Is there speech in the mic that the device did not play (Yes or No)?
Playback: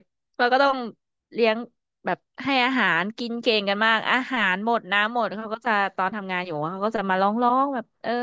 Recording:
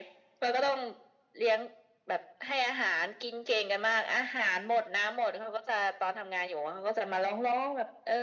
No